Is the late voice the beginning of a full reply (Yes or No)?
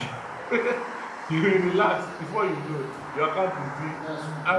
No